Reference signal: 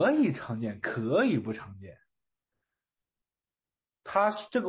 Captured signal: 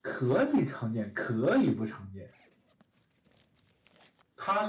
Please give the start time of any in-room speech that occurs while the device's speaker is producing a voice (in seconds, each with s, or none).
none